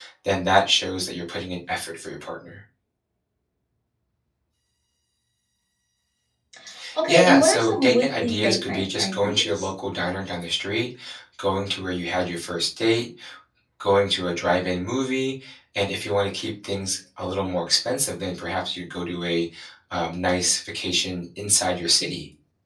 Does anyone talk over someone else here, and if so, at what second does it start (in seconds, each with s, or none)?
7.1 s